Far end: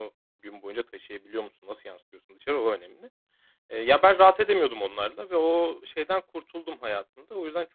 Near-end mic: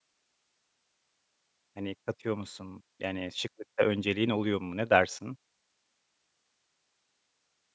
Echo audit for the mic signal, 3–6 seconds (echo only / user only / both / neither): user only